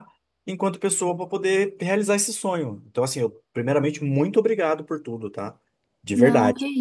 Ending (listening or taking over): taking over